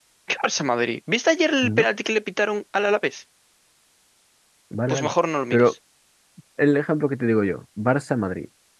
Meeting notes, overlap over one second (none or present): none